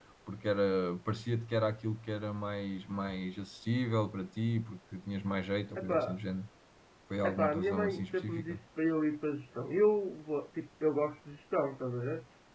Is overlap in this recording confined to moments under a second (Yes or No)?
No